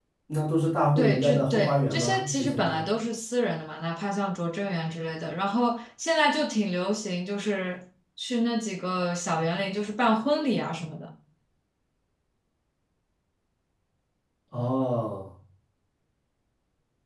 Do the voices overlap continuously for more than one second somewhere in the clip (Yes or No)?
Yes